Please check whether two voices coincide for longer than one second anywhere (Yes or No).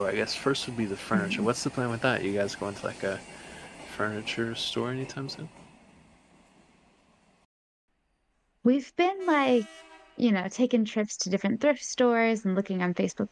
No